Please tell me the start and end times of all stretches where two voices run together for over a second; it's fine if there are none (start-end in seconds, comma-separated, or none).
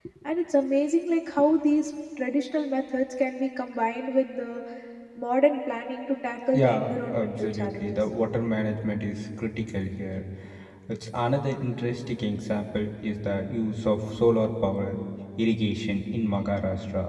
6.5-8.0